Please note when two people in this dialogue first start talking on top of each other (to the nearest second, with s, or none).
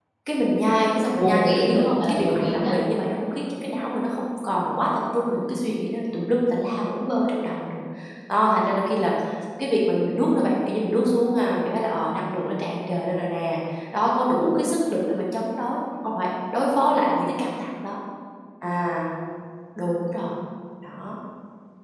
1 s